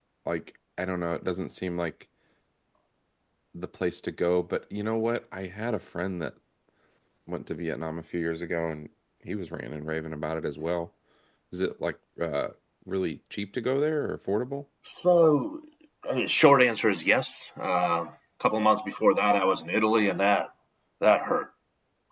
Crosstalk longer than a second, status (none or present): none